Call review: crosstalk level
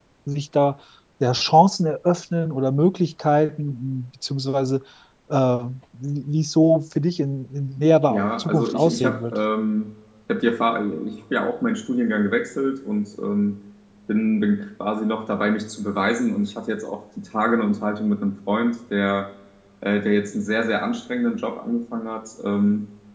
present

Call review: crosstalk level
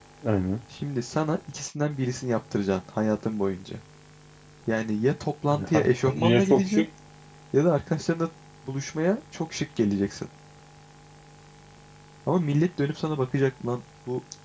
present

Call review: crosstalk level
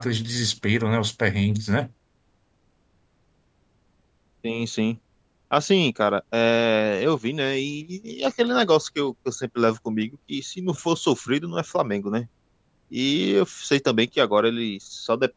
none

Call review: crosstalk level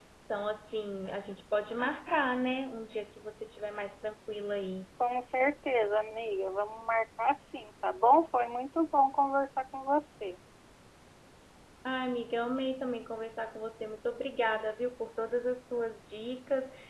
none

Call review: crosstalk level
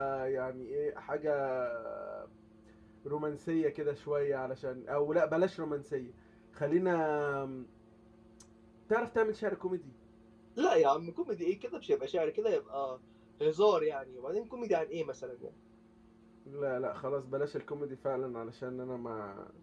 none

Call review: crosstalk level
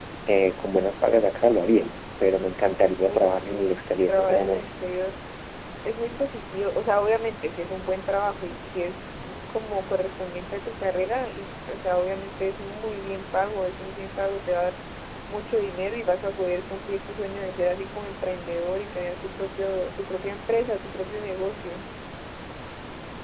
present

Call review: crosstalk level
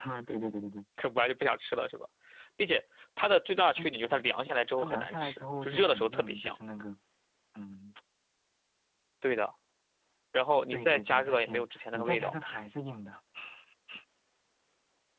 present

